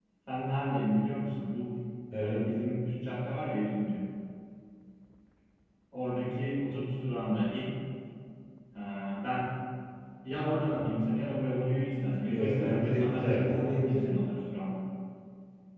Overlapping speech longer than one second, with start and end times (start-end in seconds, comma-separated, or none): 12.3-14.2